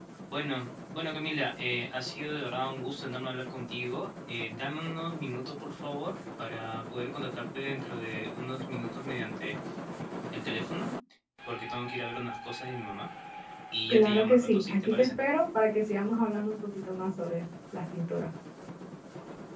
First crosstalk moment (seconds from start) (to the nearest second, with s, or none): 14 s